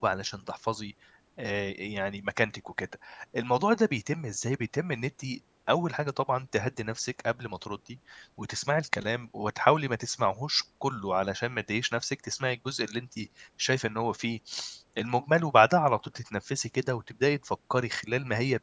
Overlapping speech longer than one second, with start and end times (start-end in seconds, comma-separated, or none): none